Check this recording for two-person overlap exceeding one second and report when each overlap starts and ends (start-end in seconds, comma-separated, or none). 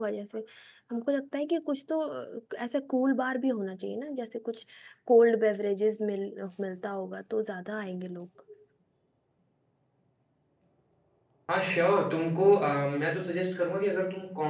none